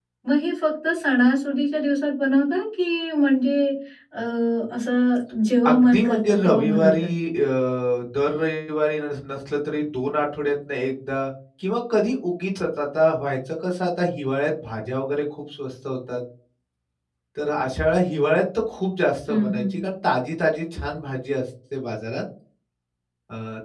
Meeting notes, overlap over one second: present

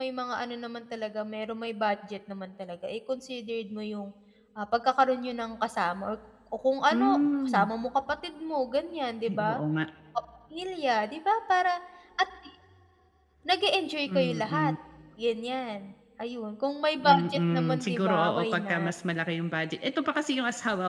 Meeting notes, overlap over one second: present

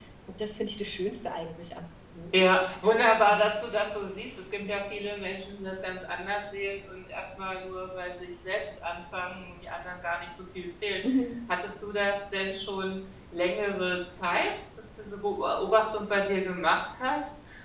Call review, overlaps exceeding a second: none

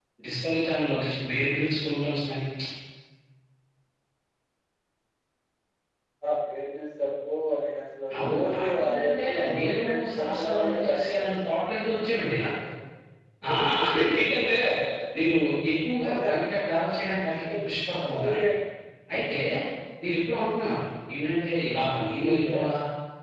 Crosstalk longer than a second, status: present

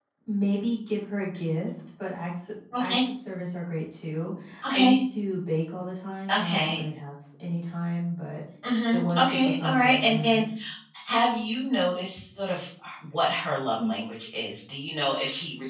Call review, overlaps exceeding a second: present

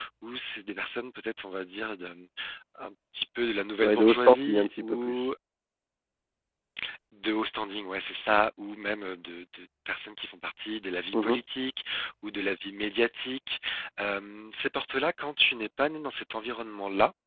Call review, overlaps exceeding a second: present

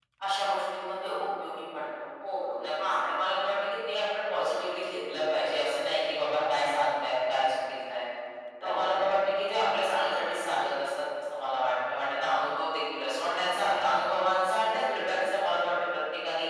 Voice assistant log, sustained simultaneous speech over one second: none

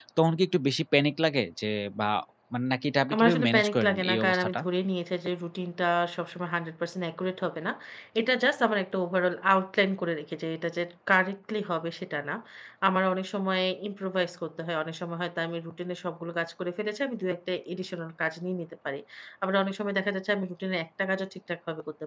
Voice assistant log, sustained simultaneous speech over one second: present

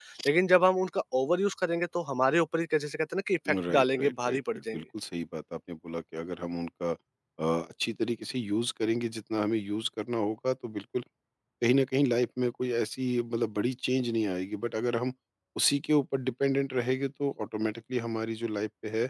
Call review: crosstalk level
present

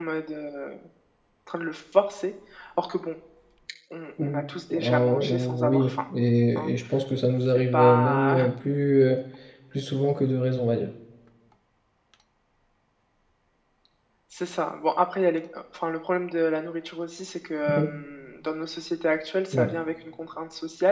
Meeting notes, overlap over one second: present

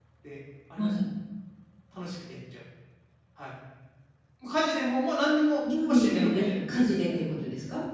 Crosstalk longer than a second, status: present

